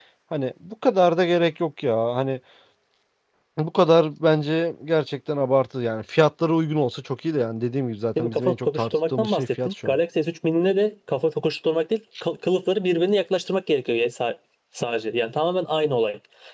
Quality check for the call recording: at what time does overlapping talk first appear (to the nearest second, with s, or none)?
8 s